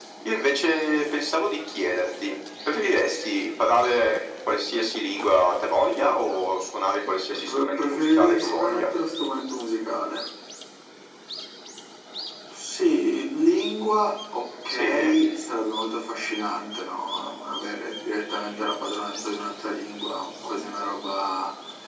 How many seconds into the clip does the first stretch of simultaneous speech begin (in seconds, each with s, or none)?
7.3 s